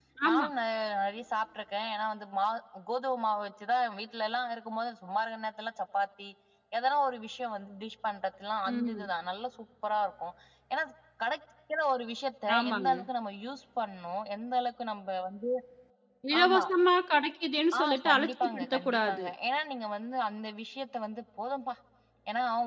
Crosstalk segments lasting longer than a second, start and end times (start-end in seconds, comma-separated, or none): 17.8-19.2